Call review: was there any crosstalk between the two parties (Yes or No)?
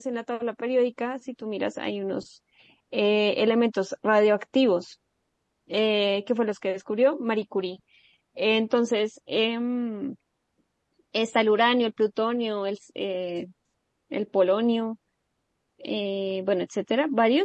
No